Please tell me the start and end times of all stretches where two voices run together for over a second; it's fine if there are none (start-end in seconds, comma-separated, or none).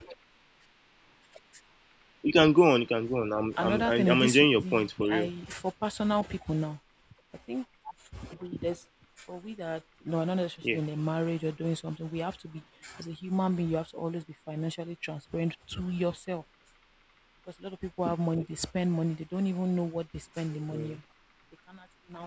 3.6-5.3